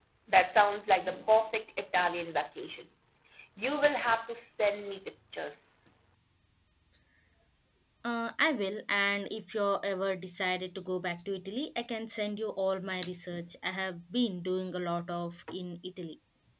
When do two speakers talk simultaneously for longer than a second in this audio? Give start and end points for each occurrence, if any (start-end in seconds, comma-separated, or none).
none